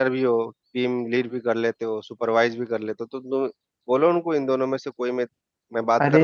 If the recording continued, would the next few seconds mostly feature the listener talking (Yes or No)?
Yes